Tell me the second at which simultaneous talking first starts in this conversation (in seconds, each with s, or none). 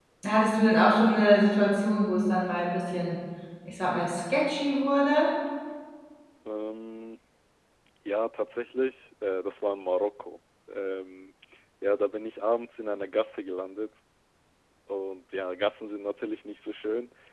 none